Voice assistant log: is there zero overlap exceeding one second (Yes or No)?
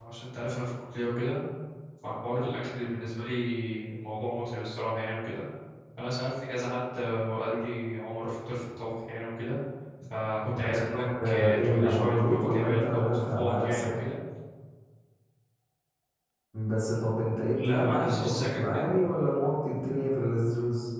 No